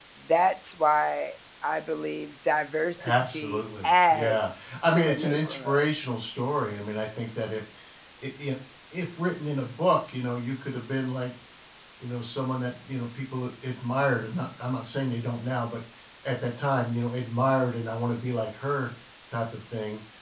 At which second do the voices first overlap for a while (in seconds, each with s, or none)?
3.0 s